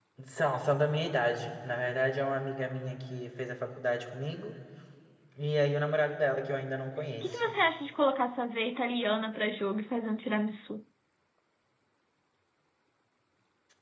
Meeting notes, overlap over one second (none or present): none